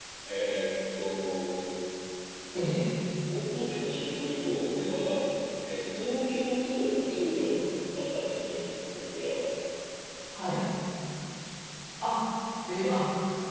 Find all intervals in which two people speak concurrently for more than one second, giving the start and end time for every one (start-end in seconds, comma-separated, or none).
none